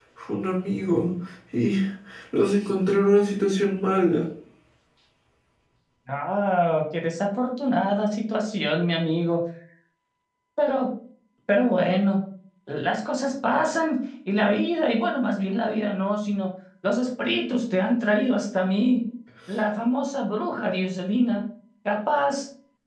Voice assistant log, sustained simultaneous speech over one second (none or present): none